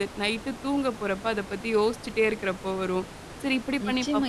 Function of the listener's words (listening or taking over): taking over